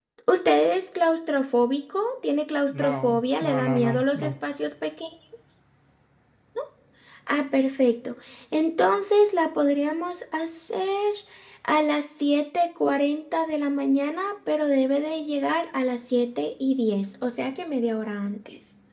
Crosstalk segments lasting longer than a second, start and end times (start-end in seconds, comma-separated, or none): 2.8-4.3